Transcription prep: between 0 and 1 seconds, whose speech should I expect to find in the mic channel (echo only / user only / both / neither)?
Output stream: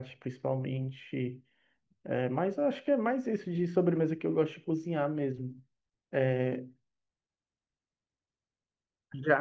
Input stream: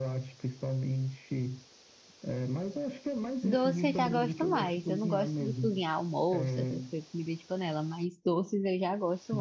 echo only